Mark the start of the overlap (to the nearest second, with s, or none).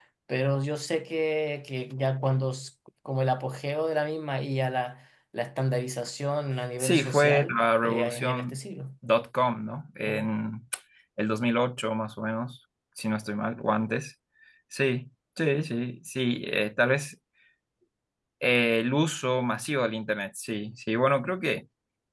7 s